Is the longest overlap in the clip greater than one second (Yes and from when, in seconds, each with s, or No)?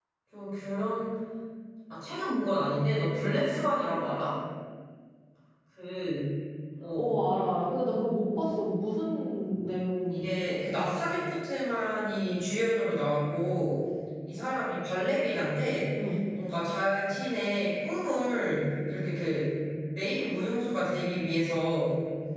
No